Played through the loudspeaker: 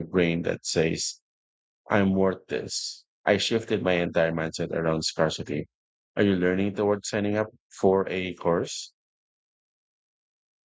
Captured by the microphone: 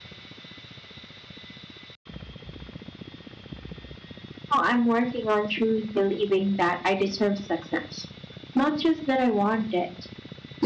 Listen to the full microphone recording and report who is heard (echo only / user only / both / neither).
user only